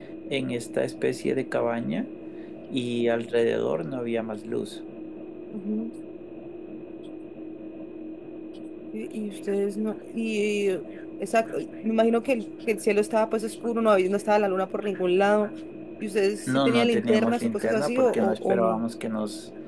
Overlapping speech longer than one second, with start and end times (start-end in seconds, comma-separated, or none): 16.5-18.8